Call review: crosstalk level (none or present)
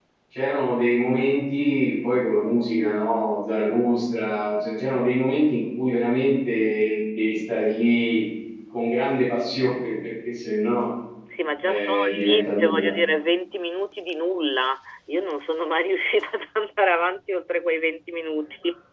present